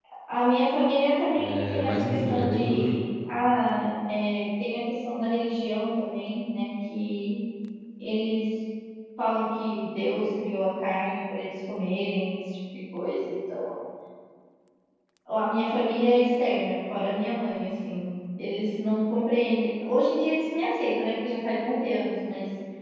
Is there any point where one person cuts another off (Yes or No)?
Yes